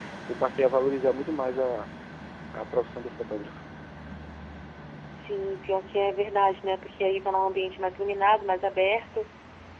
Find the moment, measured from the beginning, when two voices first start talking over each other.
none

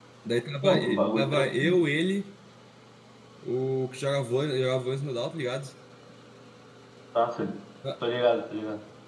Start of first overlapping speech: 0.6 s

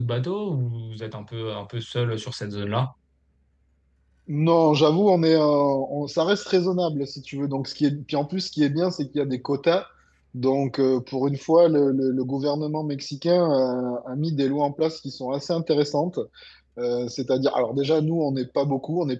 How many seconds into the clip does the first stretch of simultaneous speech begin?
none

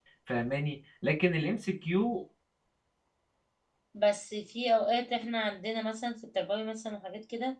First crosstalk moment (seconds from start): none

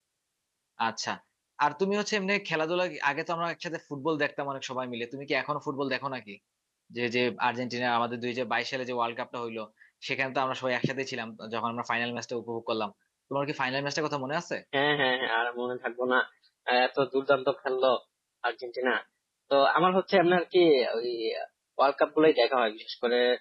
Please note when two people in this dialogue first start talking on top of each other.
none

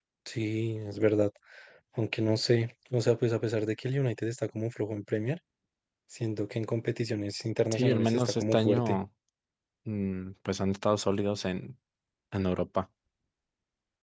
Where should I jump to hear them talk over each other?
7.7 s

